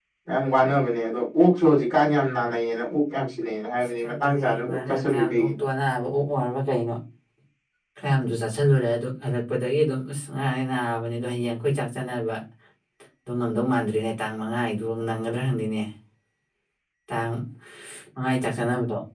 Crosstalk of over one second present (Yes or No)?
Yes